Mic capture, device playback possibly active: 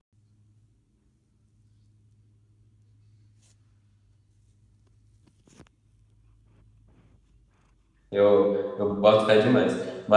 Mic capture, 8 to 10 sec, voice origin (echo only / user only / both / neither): user only